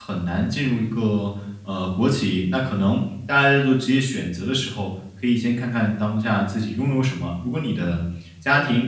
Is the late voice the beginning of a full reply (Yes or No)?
No